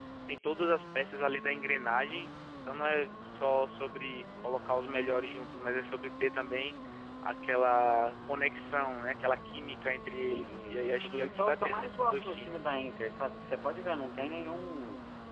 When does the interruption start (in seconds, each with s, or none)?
10.0 s